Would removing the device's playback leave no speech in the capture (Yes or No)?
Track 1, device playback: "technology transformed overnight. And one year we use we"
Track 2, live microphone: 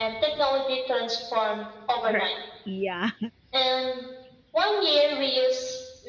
No